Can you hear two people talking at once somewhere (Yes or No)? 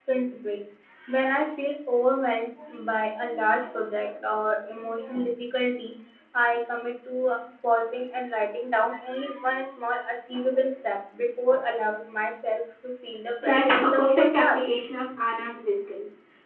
Yes